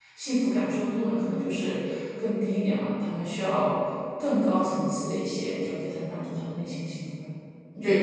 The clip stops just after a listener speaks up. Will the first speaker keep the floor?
No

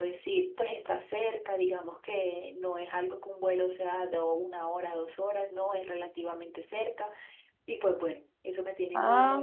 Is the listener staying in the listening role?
No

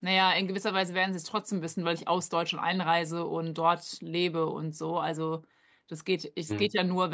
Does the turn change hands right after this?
No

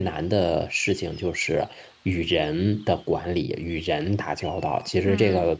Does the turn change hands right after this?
No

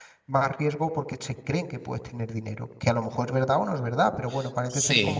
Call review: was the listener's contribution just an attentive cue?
Yes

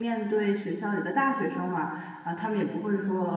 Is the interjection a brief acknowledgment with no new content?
Yes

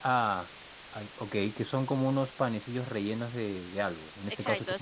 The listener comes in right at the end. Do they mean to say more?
Yes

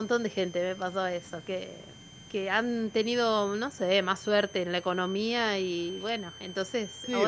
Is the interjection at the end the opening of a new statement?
Yes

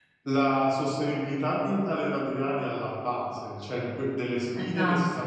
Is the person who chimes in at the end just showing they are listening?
Yes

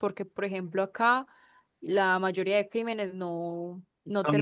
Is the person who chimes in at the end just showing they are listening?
Yes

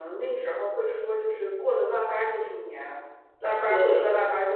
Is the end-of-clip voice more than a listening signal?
No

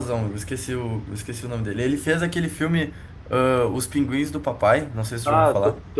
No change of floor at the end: No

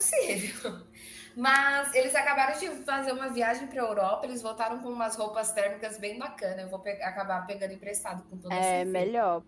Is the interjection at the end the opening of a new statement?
Yes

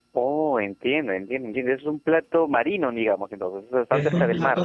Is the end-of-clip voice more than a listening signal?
Yes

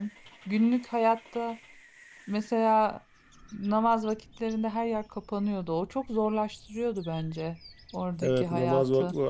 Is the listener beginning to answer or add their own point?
Yes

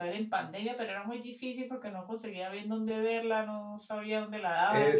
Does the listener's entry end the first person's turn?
Yes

